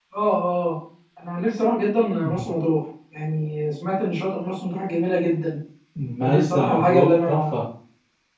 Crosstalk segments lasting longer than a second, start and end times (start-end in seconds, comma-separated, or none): 6.2-7.6